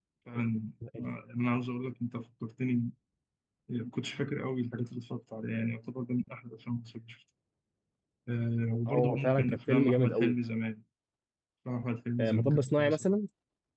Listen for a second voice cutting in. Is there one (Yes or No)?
Yes